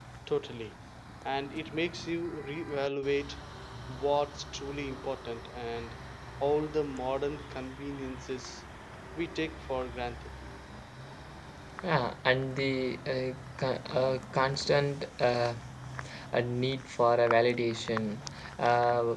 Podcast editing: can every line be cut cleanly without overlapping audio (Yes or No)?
Yes